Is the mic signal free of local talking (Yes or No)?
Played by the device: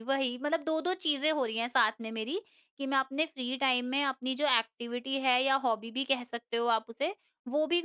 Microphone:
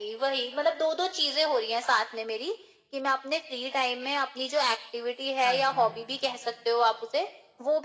No